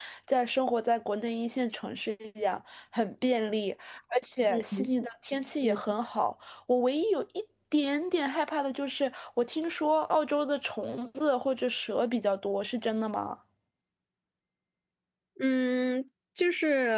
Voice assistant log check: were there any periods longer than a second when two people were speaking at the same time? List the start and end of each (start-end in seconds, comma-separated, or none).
none